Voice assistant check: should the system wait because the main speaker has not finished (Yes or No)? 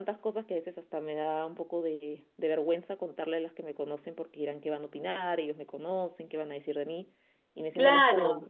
Yes